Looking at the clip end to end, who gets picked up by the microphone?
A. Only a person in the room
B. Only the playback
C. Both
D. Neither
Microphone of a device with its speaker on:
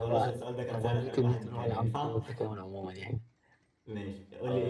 C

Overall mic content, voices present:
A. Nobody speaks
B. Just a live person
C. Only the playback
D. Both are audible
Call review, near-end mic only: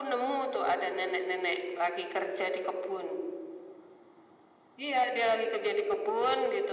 C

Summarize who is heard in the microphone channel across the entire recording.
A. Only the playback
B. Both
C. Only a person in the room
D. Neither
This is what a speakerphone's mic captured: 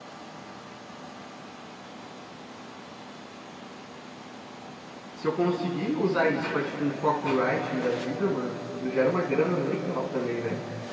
C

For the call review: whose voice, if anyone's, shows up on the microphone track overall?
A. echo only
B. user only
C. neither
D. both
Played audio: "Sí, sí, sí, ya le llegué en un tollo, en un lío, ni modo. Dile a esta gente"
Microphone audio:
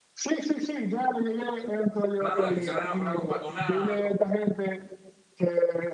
D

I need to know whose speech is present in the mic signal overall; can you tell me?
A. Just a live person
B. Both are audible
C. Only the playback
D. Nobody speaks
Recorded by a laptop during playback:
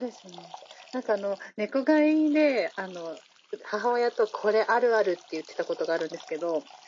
C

